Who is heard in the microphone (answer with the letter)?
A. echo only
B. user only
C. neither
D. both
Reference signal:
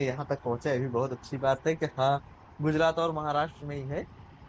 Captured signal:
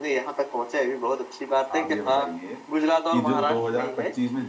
D